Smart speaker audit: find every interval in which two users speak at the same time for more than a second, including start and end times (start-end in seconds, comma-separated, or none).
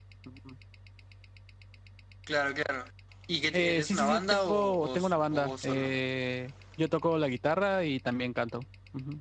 3.5-6.0